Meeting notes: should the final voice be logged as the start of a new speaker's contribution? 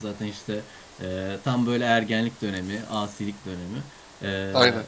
No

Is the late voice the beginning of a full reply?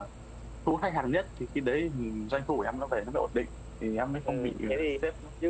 Yes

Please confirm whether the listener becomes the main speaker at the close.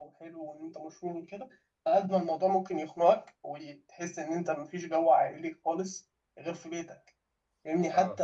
No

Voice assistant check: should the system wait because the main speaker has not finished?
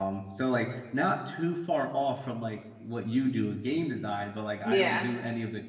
Yes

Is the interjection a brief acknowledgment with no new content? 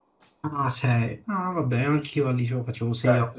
No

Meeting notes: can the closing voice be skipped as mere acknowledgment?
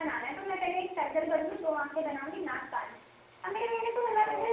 Yes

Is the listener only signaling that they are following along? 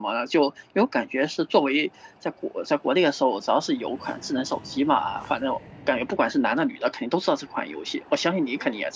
No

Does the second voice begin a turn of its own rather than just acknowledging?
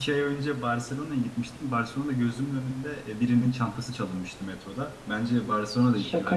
Yes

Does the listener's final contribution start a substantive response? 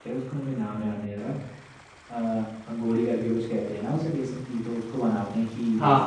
No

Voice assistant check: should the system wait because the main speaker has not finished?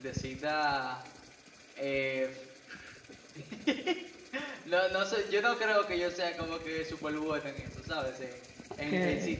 Yes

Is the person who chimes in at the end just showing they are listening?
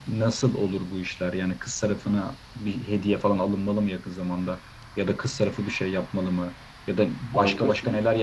Yes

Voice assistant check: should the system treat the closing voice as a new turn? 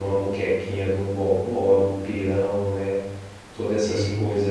No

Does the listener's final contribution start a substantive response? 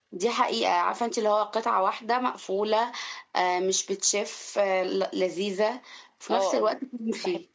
Yes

